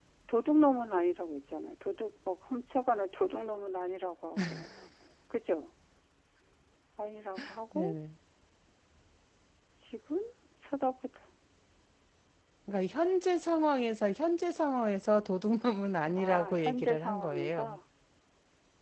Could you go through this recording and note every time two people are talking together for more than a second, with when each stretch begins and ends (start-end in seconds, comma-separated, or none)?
16.2-17.7